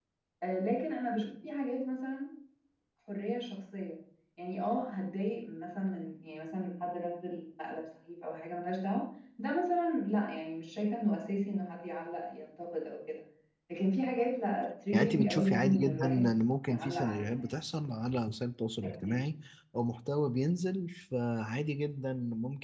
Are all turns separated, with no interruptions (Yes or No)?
No